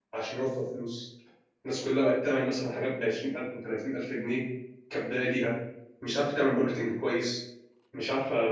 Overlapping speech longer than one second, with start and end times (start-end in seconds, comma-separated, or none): none